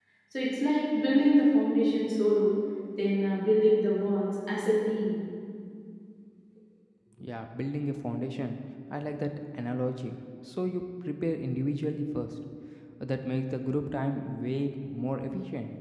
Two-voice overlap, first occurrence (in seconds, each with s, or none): none